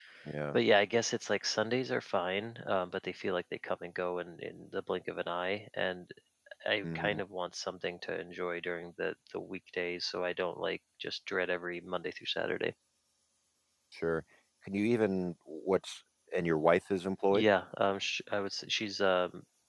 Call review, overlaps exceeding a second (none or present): none